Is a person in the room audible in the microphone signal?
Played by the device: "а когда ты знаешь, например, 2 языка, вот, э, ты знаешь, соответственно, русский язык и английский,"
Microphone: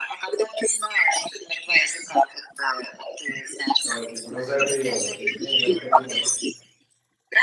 Yes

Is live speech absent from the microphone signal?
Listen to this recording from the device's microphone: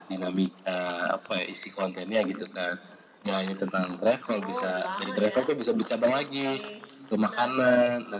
No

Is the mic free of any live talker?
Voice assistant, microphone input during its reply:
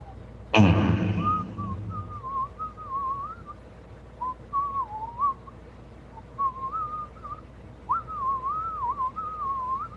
No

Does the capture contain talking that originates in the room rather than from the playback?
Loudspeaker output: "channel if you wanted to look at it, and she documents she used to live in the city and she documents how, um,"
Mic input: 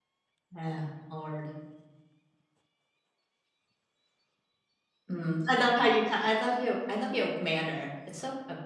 Yes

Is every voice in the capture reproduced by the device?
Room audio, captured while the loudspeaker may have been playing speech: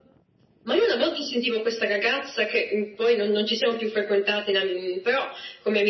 Yes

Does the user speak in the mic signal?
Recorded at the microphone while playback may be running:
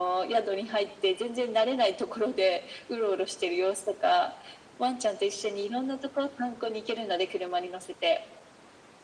No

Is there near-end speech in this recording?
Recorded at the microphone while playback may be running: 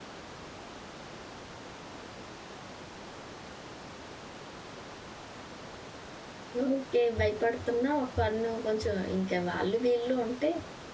Yes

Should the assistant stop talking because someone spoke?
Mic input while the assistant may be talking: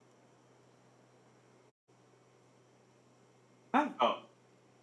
Yes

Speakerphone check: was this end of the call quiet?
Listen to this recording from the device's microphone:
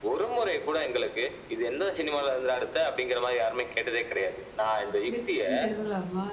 No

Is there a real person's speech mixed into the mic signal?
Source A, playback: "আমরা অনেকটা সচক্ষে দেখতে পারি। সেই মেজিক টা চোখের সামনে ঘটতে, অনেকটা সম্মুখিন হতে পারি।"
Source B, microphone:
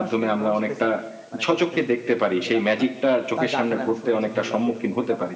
Yes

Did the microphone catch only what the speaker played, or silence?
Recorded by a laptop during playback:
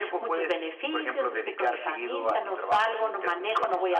Yes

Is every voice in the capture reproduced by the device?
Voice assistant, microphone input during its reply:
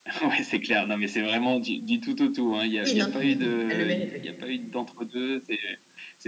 No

